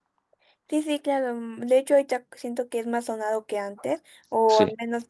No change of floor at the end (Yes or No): Yes